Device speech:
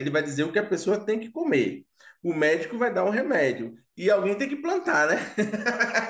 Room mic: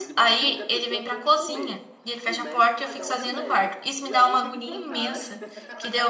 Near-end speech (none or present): present